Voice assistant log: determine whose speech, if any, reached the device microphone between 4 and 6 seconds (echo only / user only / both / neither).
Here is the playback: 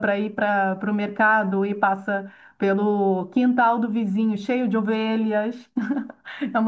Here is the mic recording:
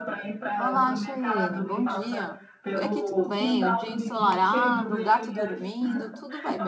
both